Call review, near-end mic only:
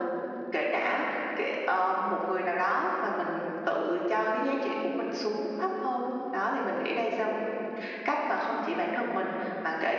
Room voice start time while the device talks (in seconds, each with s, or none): none